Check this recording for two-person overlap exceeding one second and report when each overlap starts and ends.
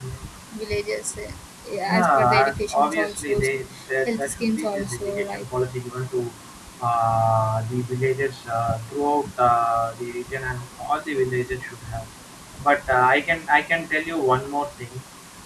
1.9-3.4, 4.0-5.5

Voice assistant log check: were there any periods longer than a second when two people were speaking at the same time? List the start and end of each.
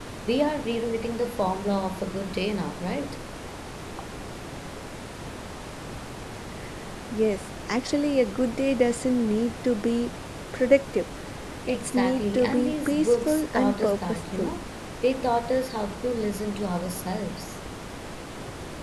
11.7-14.5

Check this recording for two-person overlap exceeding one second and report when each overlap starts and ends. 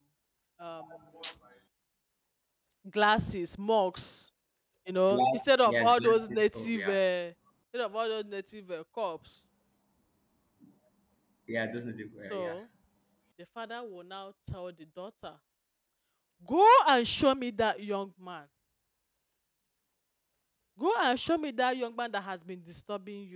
5.1-7.0

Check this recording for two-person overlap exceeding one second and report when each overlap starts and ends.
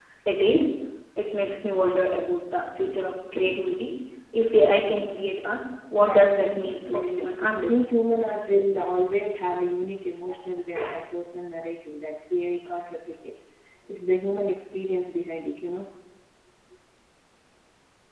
6.0-7.8

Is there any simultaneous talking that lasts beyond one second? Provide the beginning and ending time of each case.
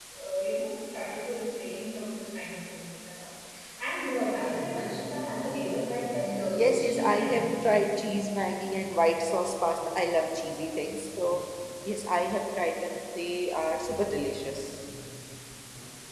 6.2-7.5

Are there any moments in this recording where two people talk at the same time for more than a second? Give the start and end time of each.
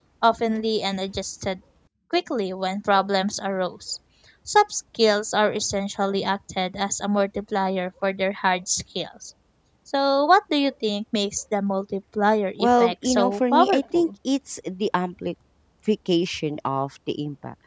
12.6-14.1

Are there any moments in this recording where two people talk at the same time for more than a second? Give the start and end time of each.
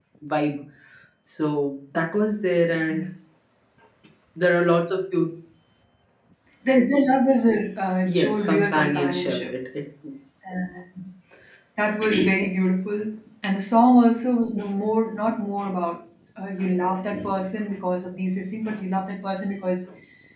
8.1-9.5

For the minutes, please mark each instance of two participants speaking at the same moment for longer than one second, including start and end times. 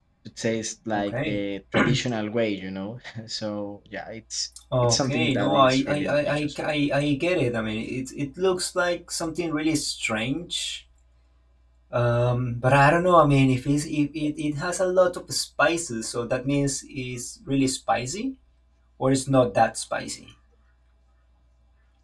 4.8-6.6

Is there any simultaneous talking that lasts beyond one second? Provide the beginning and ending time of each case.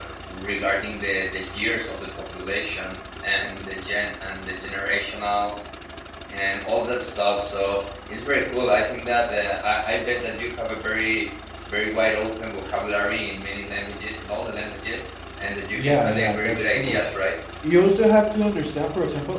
15.7-17.0

